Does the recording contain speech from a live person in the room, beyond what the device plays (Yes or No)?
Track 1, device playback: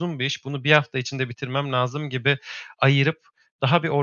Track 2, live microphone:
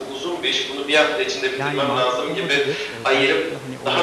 Yes